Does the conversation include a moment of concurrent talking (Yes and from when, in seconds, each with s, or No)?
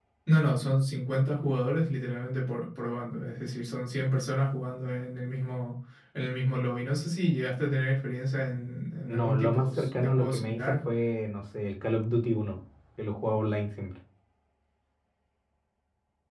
Yes, from 9.1 s